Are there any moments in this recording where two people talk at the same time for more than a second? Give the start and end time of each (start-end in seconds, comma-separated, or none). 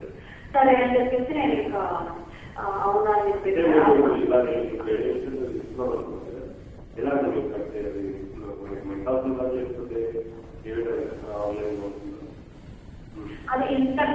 3.4-4.8